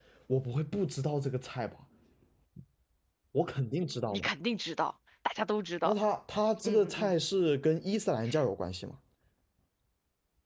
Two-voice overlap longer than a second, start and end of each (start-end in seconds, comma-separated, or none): none